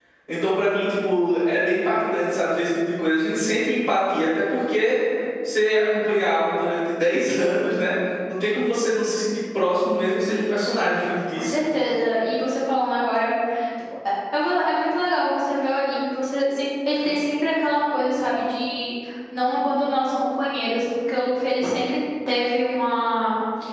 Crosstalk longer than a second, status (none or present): none